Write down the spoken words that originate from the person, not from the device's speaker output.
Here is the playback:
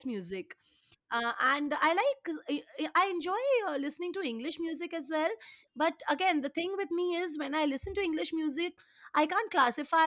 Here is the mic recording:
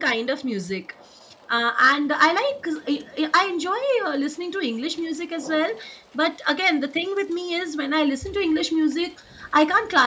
none

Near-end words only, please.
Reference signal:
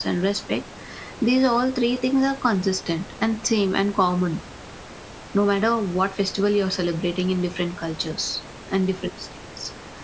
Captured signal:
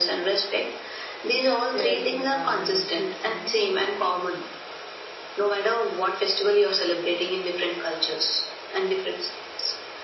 sharing and patience

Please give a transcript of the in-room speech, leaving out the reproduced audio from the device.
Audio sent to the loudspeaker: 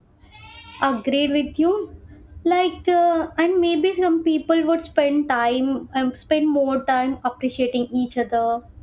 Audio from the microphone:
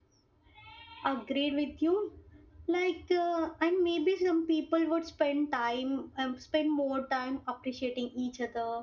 none

